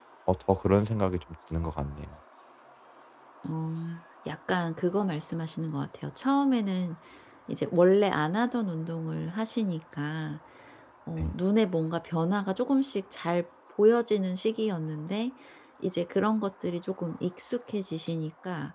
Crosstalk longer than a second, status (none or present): none